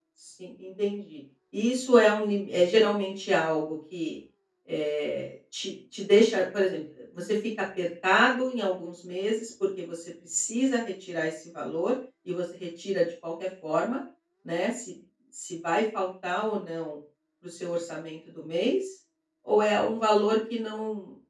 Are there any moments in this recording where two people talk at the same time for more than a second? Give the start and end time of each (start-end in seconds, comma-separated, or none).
none